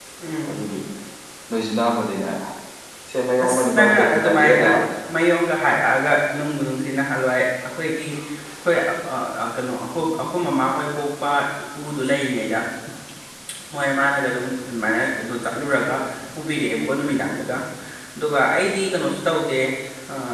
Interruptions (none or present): present